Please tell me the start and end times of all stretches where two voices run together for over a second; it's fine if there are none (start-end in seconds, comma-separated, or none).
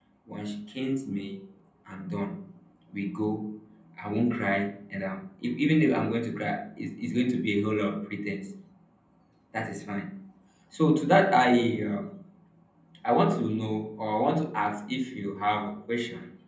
none